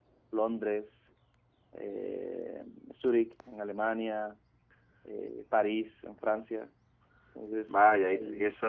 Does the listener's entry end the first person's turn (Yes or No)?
Yes